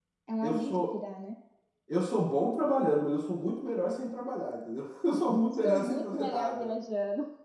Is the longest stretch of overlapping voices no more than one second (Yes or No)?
No